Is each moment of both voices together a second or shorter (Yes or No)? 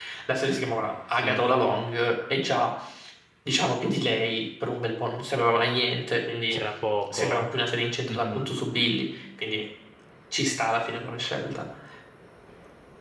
Yes